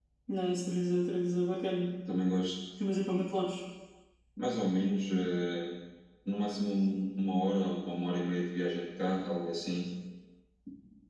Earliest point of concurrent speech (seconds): none

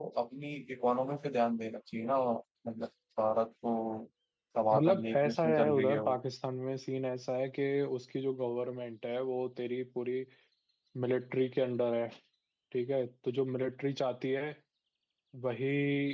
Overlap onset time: 4.7 s

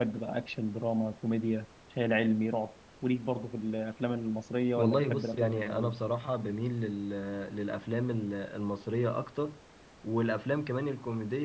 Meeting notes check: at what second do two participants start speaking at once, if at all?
4.8 s

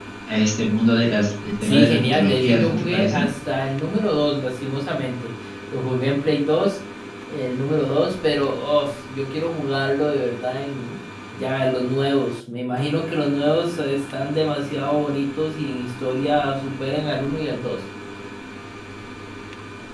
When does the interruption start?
1.6 s

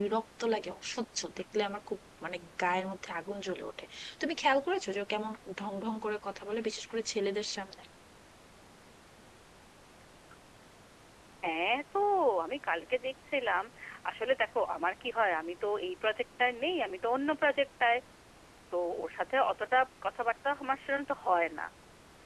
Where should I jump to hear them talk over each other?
none

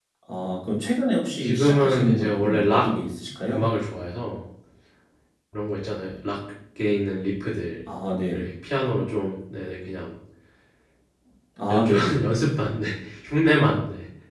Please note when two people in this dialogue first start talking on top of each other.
1.4 s

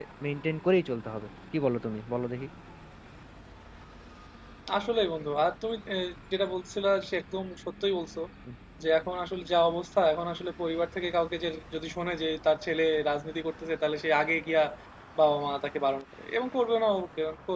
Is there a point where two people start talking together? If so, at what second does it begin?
none

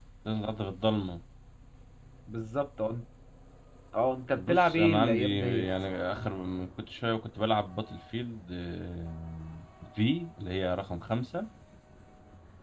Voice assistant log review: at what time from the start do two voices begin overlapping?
4.4 s

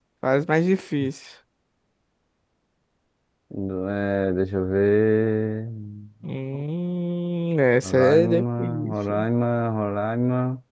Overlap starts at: 7.8 s

